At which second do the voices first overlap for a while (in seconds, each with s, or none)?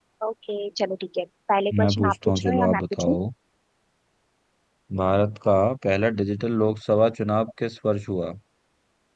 1.7 s